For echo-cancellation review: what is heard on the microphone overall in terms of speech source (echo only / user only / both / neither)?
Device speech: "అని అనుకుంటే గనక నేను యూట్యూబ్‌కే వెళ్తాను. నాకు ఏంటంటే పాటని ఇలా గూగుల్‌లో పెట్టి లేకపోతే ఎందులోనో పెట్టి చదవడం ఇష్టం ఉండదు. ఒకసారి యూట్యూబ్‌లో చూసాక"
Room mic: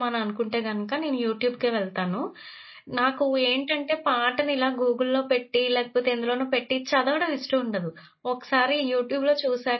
echo only